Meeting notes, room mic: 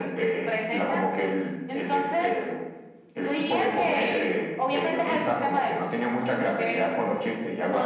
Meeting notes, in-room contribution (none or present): none